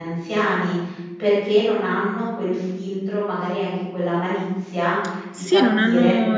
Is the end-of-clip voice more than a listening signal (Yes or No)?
Yes